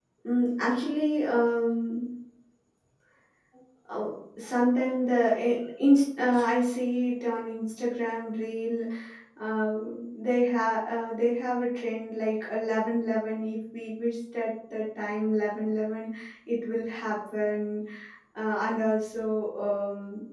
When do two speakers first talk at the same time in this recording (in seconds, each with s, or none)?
none